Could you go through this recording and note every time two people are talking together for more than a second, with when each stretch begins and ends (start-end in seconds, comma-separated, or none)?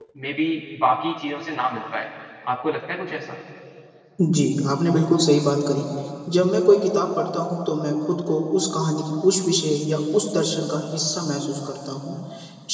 none